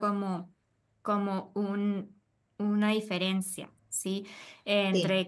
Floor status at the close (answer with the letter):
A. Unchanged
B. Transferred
A